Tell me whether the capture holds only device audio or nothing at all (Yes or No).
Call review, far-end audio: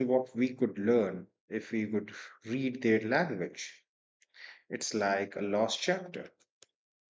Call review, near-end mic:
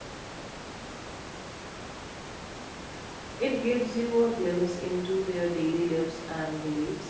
No